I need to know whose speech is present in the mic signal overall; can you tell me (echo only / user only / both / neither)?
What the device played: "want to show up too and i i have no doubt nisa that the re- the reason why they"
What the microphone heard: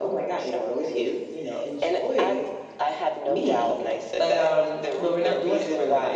both